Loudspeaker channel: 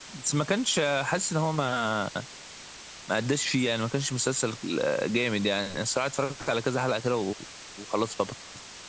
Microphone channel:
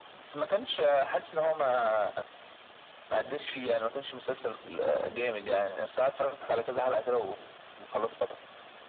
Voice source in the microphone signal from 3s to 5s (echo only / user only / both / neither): echo only